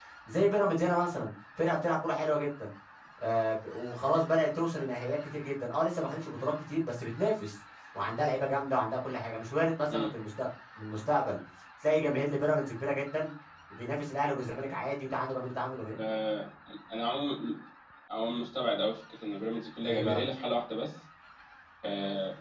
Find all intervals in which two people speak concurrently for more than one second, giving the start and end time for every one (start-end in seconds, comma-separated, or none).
none